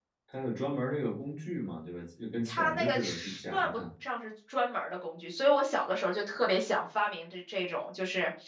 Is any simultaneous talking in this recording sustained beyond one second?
Yes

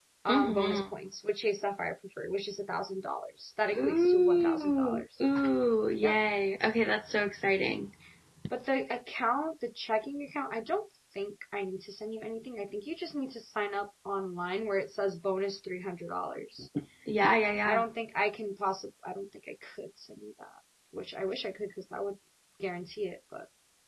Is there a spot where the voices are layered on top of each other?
Yes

